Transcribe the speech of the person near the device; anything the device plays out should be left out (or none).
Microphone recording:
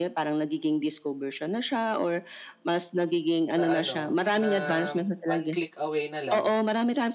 na ano na one click away na lang.